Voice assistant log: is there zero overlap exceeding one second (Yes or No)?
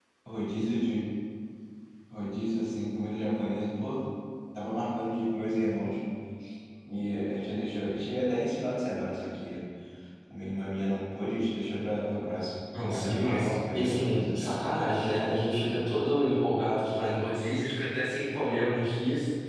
No